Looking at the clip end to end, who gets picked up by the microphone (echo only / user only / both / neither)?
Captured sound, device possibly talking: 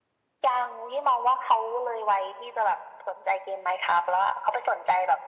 echo only